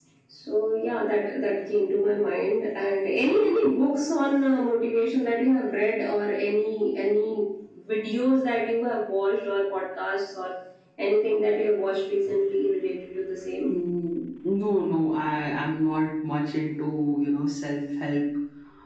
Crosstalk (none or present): none